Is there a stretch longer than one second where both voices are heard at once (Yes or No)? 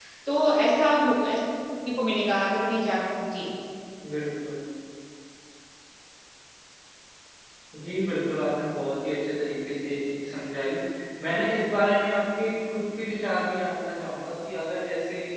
No